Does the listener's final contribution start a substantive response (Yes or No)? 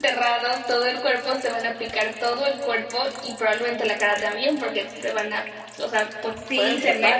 Yes